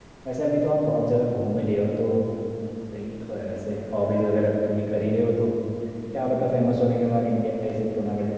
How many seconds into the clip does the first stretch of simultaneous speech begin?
none

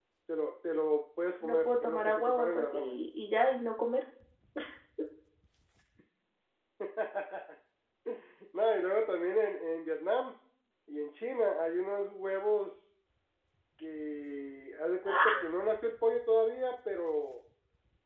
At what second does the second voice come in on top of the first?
1.4 s

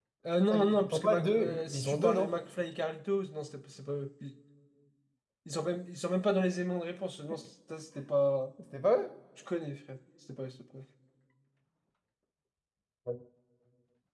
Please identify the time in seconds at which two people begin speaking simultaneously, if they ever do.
0.5 s

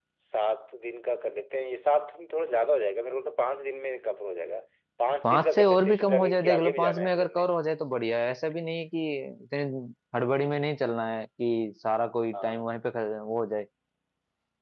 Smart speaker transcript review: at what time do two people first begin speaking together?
5.2 s

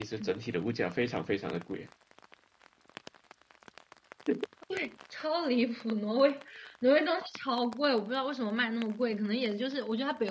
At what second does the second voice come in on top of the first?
none

